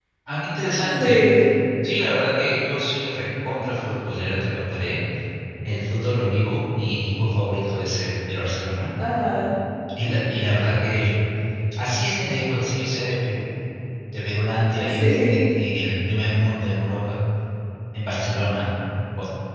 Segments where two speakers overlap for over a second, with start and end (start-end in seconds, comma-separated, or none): none